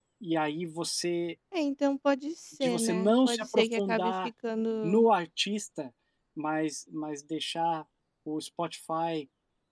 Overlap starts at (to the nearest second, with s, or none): 3 s